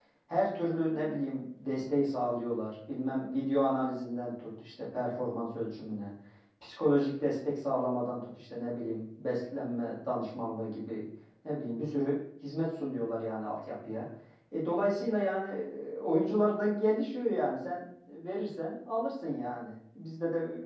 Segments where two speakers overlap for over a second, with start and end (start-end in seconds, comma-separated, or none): none